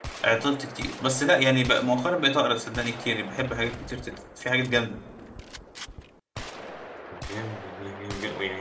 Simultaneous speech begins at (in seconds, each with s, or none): none